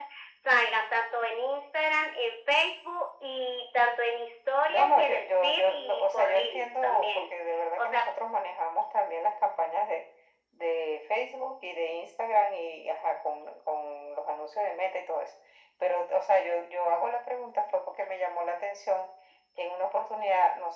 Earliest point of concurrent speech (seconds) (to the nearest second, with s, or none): 5 s